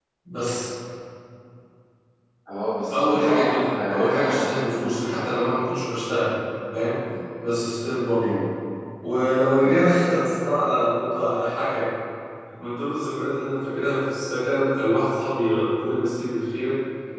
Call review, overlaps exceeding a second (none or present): present